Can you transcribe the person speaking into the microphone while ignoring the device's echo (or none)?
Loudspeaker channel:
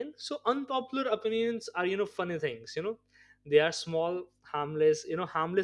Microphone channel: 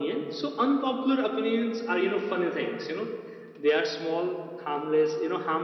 none